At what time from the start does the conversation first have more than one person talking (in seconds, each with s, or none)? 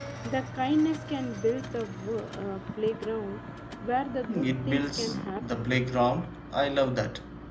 4.3 s